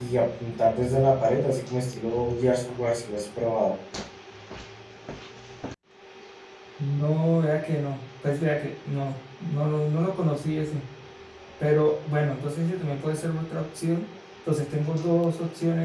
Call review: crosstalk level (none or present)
none